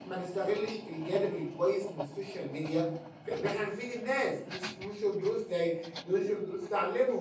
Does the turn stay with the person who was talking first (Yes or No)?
Yes